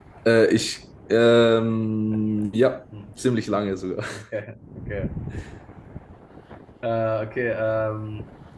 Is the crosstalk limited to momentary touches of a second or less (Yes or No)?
Yes